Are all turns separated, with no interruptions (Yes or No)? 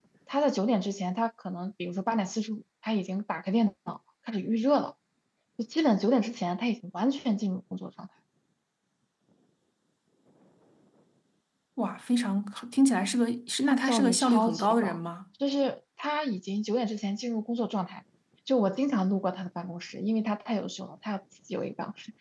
No